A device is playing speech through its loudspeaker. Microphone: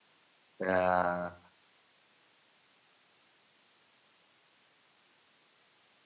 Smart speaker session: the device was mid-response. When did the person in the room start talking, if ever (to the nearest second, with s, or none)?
1 s